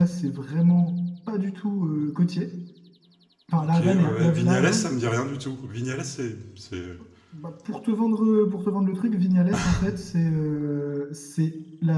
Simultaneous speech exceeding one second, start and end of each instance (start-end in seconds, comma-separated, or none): 3.6-4.9